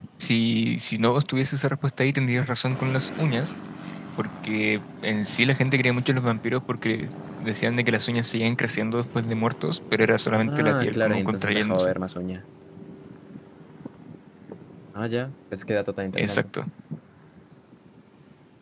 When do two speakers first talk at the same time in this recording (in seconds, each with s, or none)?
10.3 s